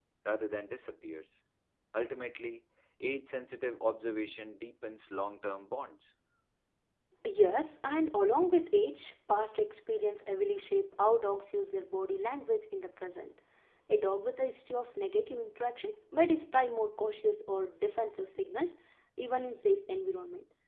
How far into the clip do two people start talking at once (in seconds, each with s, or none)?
none